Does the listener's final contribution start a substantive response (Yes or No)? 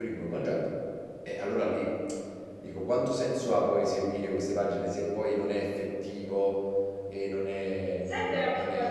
Yes